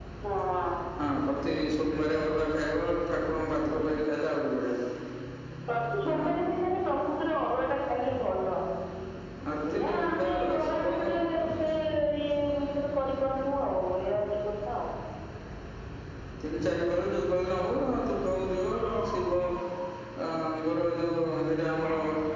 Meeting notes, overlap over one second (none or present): present